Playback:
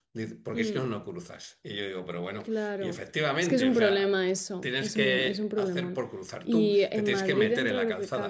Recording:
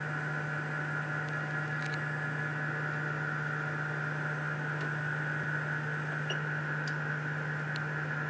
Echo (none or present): none